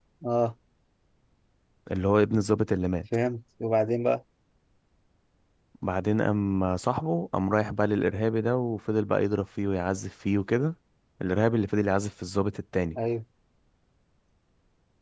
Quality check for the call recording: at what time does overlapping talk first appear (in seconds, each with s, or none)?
none